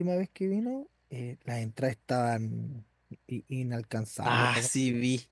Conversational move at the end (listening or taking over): taking over